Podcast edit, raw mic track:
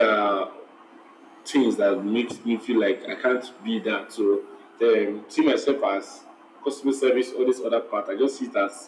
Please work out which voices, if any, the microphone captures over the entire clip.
echo only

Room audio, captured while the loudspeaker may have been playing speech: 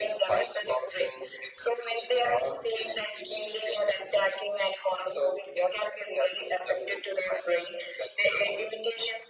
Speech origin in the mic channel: echo only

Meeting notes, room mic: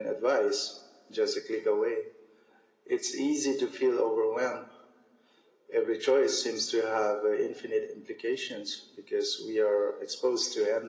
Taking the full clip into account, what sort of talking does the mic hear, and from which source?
echo only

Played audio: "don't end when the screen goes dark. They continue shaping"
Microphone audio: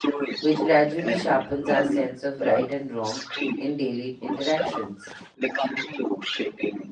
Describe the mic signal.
both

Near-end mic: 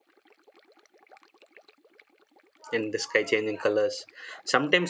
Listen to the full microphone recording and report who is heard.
user only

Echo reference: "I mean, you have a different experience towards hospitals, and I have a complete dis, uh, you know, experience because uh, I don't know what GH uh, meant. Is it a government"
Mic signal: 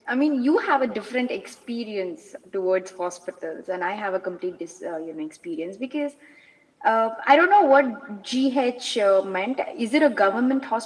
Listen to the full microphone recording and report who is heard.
echo only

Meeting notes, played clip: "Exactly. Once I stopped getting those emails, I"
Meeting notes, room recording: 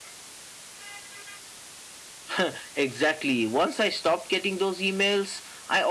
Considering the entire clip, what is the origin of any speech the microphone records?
echo only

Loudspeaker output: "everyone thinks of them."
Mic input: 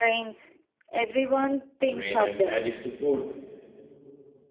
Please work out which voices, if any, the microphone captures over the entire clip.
both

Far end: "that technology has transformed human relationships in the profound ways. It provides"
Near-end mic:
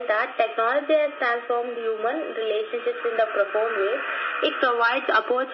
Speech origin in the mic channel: echo only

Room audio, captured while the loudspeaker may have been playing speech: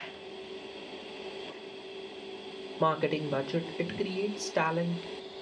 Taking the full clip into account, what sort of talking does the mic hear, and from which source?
user only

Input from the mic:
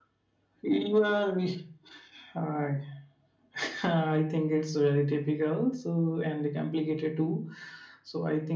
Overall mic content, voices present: echo only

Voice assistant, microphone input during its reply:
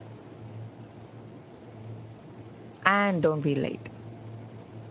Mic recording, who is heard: user only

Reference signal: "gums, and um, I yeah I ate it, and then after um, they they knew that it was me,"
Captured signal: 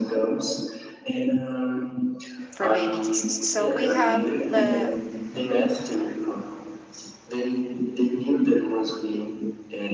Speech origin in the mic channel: both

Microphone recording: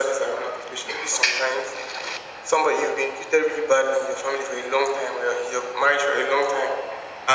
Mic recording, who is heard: echo only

